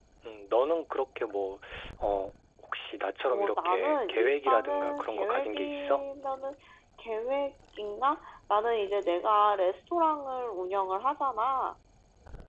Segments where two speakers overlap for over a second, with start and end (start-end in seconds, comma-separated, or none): 3.3-6.0